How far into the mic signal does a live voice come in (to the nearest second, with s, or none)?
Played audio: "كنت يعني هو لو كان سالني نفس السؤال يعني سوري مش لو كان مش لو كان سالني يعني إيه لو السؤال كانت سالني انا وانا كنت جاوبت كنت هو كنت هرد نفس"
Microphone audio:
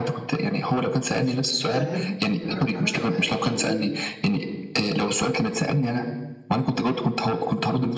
2 s